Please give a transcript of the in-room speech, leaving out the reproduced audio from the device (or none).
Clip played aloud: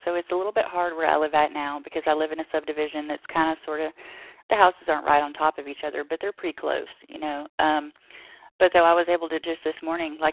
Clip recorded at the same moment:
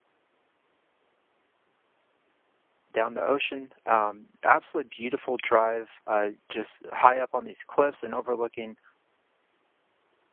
down the ocean. Um, absolutely beautiful drive, uh, just high up on these cliffs and overlooking